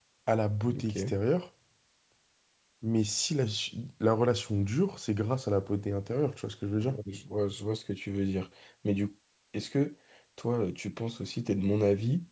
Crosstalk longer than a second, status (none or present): none